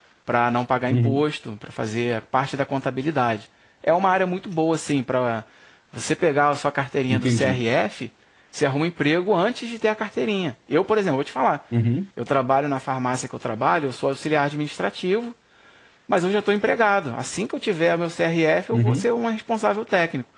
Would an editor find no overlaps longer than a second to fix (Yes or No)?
Yes